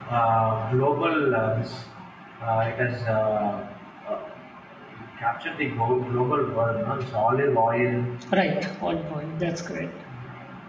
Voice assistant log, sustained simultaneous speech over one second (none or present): none